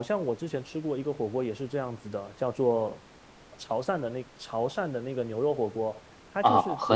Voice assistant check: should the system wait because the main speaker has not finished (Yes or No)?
No